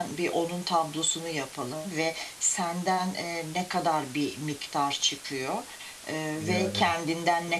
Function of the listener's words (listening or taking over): listening